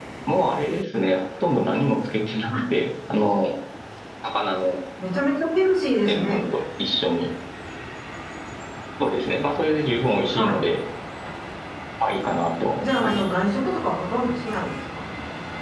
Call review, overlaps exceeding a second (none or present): none